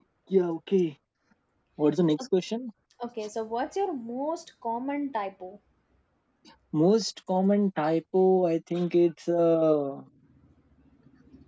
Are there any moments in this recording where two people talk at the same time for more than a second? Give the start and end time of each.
none

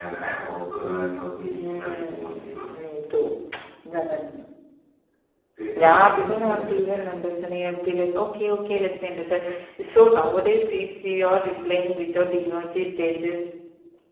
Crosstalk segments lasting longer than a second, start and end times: 1.5-2.7, 5.8-7.1

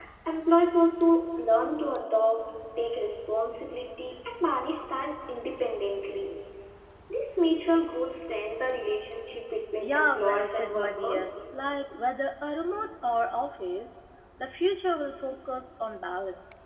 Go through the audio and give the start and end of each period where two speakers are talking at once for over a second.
9.8-11.2

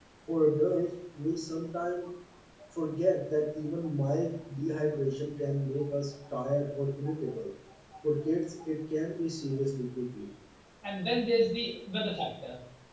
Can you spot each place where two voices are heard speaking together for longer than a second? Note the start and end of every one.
none

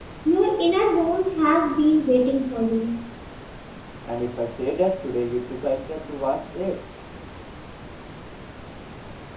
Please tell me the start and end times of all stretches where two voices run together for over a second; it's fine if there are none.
none

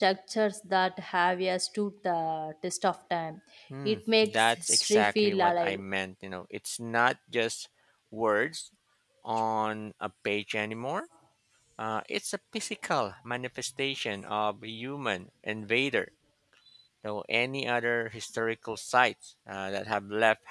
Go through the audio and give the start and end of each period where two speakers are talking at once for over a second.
3.9-5.8

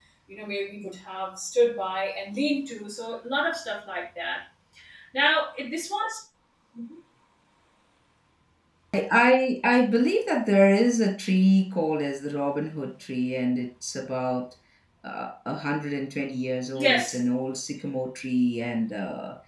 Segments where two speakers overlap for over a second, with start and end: none

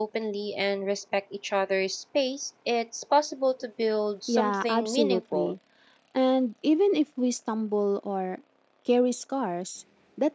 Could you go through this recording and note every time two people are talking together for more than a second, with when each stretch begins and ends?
4.3-5.5

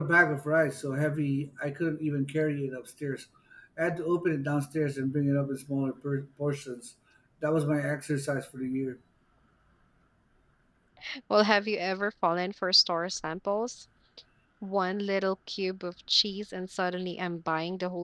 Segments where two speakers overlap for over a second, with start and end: none

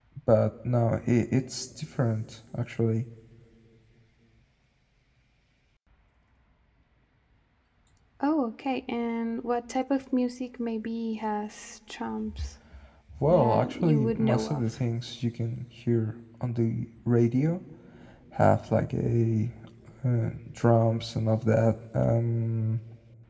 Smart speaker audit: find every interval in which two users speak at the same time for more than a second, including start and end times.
13.3-14.6

